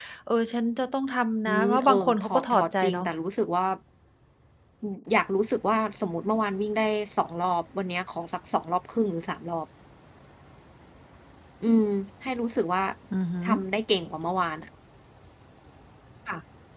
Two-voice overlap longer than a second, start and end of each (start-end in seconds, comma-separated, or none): 1.5-3.1